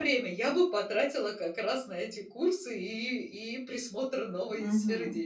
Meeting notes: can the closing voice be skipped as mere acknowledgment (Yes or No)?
No